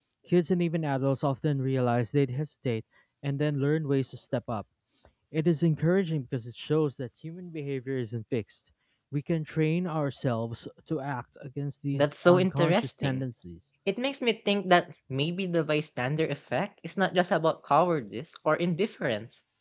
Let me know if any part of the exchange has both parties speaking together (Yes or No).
Yes